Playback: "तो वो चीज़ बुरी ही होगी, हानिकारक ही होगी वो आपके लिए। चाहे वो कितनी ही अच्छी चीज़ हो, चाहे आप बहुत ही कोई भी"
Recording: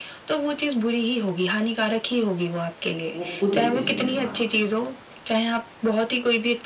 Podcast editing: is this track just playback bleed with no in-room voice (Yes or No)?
No